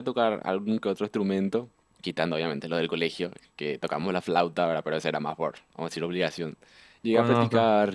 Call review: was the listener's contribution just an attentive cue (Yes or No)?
Yes